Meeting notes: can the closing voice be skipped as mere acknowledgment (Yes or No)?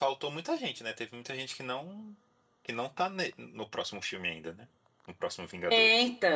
No